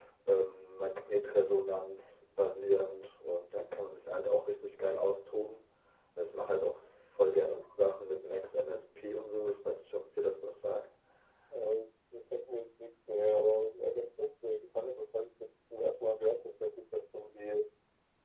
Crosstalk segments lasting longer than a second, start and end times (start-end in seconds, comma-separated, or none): none